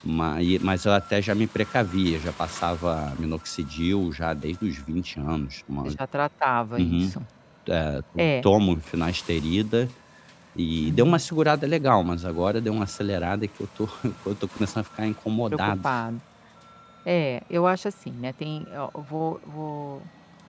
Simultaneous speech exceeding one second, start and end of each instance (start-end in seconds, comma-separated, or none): none